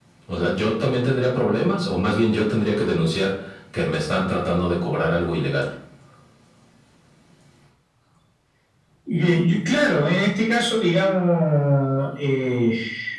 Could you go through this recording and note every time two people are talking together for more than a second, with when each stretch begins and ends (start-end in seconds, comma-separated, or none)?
none